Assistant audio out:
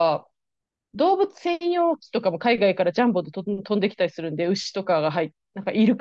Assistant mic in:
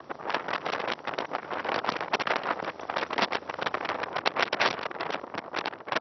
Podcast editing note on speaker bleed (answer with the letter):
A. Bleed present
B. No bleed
B